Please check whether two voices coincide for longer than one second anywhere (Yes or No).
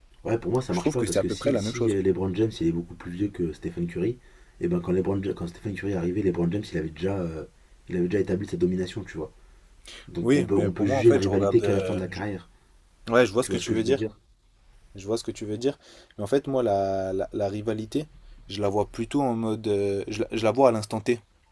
Yes